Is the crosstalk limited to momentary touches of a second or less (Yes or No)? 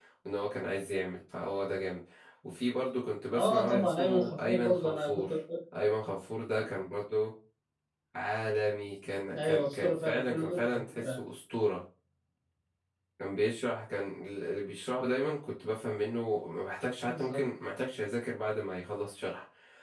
No